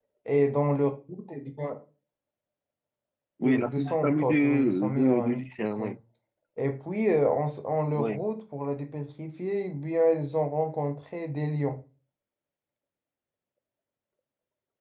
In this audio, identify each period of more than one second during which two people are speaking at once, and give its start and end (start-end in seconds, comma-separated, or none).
3.4-5.8